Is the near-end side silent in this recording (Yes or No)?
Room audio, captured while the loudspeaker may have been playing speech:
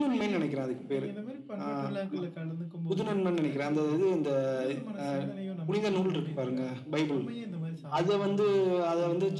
No